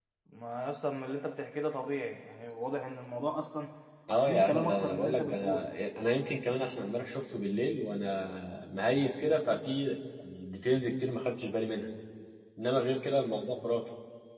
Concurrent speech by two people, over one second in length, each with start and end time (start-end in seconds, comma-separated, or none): 4.2-5.7